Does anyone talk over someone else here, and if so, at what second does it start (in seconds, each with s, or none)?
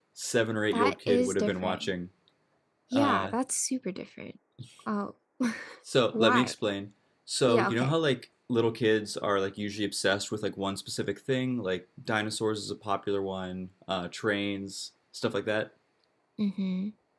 0.7 s